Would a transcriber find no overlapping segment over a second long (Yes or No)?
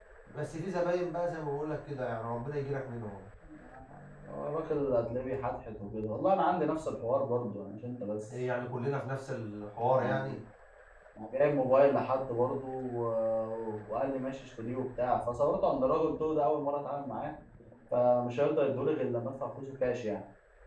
Yes